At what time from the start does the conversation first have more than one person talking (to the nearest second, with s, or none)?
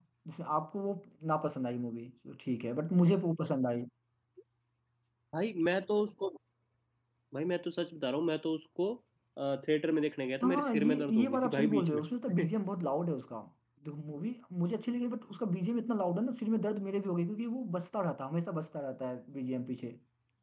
10 s